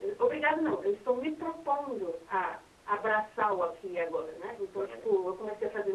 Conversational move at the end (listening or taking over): listening